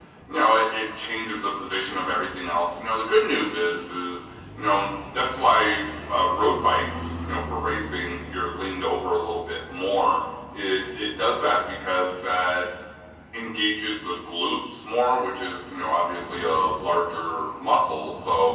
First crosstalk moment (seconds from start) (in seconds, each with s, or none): none